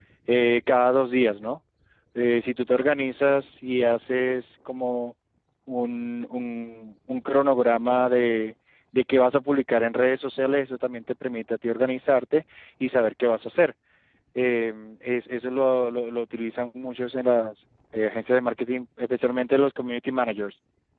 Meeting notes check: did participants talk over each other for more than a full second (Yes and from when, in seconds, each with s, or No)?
No